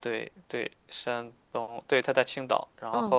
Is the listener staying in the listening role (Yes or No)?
Yes